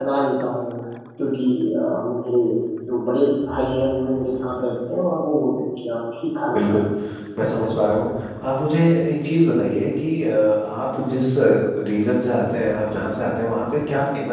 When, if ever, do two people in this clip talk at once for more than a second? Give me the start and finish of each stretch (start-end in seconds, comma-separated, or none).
none